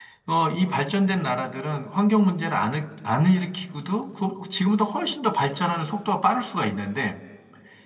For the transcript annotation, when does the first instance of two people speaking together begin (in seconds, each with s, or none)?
none